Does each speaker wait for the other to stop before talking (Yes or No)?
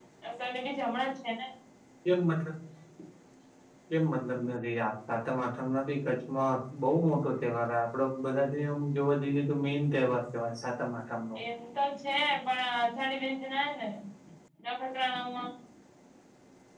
Yes